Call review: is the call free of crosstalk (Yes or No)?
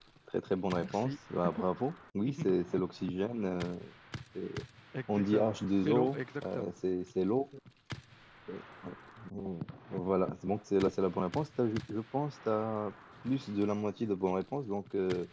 No